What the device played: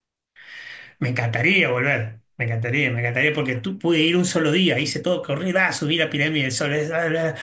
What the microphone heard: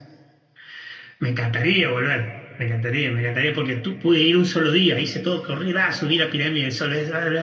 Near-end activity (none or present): none